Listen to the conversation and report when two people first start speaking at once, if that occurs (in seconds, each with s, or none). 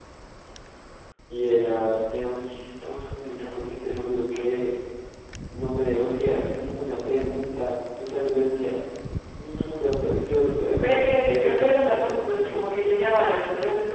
10.8 s